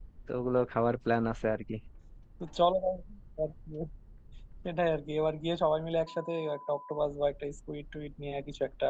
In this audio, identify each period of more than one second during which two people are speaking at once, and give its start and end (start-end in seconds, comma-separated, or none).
none